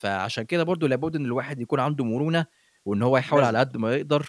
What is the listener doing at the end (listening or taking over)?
listening